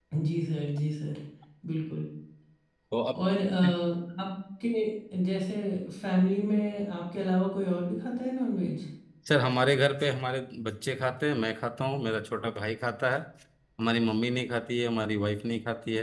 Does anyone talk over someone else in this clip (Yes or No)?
No